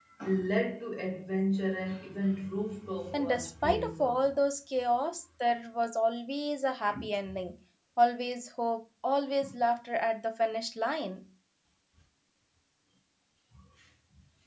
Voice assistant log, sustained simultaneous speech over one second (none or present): present